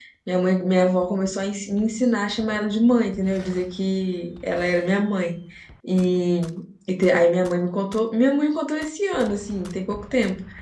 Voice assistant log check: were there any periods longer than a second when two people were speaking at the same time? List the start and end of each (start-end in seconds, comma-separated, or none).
none